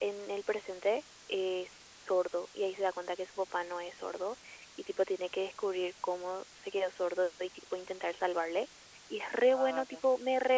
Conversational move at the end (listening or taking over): listening